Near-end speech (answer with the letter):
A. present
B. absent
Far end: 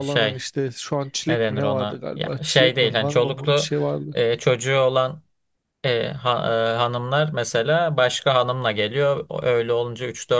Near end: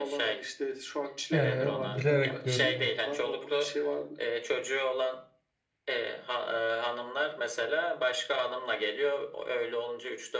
A